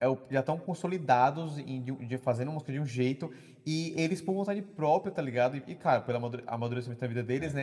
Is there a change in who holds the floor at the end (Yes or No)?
No